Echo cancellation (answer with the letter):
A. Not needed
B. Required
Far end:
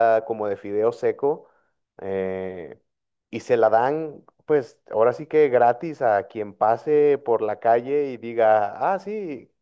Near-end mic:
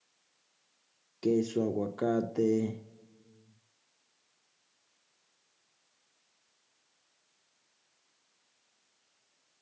A